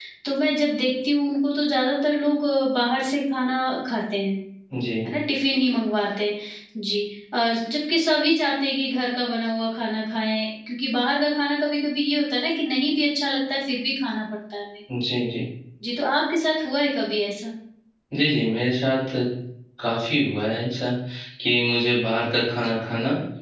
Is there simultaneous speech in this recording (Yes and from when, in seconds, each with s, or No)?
No